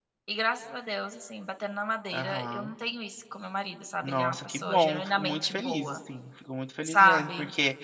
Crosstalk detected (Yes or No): Yes